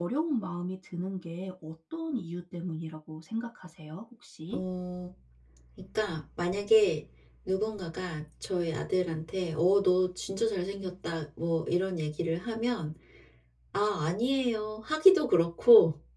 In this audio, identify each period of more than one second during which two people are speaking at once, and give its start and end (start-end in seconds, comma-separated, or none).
none